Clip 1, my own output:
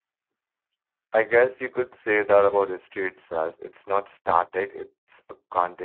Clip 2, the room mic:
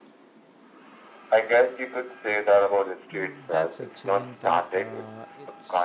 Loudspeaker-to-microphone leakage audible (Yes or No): Yes